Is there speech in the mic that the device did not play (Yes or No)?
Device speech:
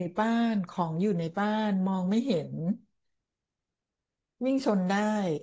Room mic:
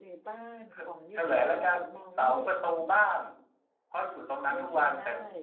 Yes